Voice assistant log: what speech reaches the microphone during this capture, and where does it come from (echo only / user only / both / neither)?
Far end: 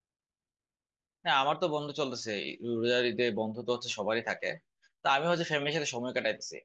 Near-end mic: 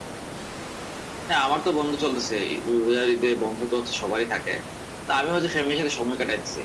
echo only